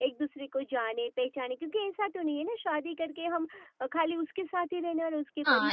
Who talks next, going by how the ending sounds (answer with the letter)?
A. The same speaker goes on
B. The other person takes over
B